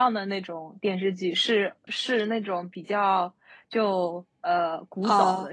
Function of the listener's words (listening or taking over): listening